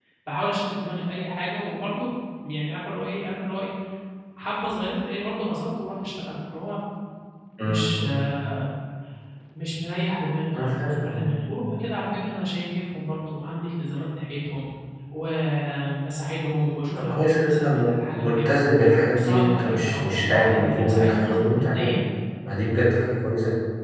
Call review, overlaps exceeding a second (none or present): present